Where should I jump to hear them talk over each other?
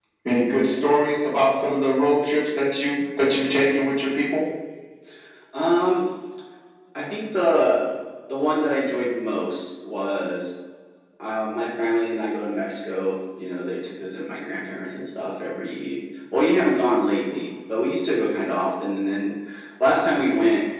none

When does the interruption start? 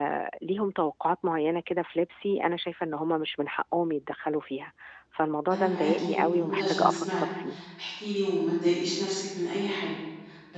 5.5 s

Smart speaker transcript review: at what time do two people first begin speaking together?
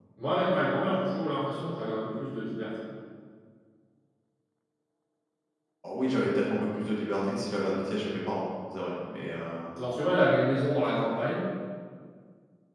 none

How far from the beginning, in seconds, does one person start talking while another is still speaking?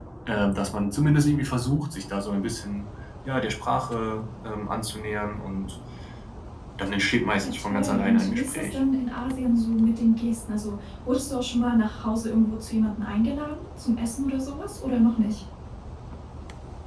7.4 s

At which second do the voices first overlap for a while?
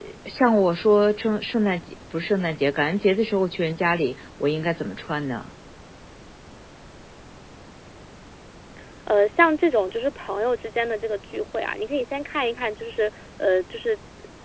none

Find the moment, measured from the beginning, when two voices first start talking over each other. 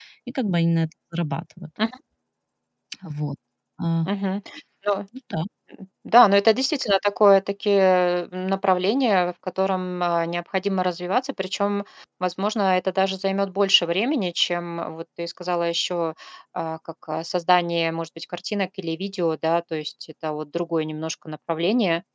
none

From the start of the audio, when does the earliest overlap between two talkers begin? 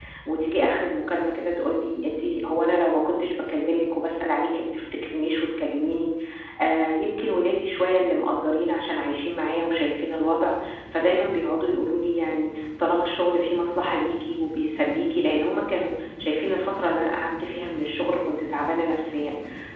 none

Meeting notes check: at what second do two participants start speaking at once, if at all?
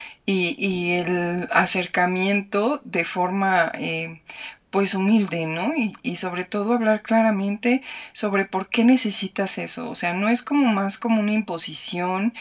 none

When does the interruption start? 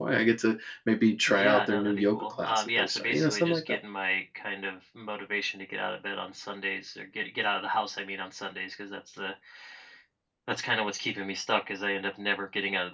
1.3 s

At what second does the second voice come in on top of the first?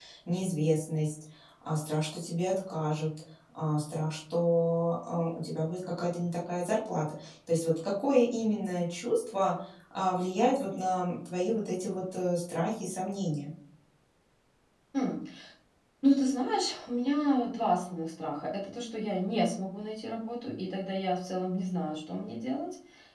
none

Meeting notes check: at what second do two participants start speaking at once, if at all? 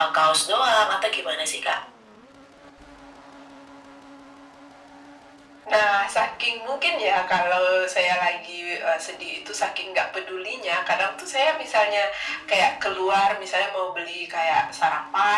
none

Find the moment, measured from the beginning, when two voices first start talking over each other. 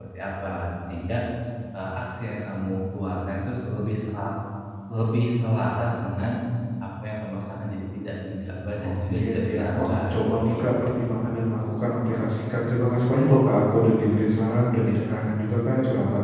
8.8 s

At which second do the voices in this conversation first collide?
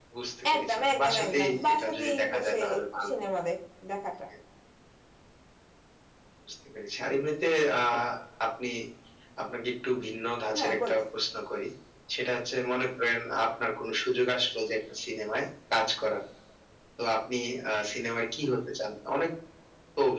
0.5 s

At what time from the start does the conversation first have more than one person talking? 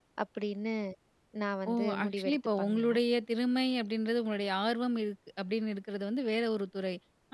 1.7 s

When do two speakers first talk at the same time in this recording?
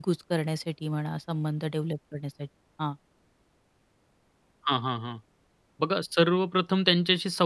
none

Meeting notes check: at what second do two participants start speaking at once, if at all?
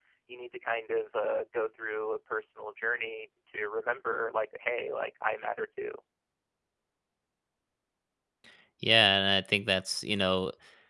none

